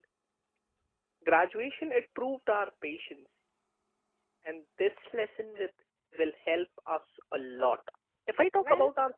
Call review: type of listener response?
listening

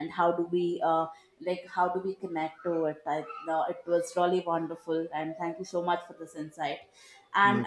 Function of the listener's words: listening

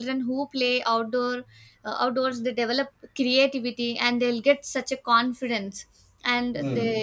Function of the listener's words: listening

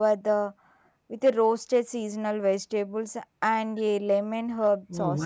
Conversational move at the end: taking over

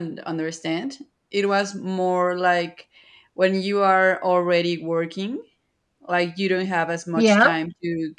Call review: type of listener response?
listening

